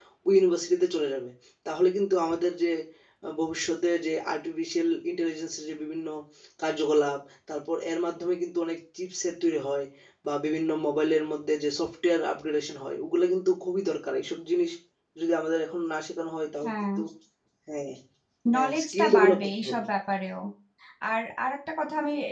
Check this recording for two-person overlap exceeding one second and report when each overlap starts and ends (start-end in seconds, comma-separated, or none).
18.5-19.9